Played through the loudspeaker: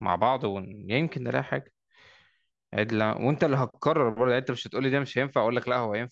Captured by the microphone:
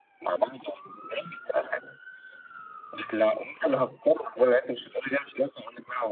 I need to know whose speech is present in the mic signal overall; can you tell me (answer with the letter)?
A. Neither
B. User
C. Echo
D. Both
C